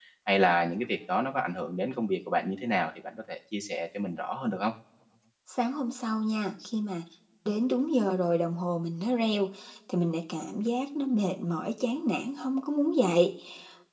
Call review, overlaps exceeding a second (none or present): none